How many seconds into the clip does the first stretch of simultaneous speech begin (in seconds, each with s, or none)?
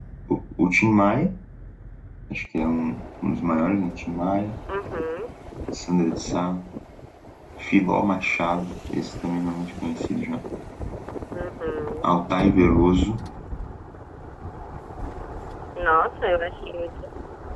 none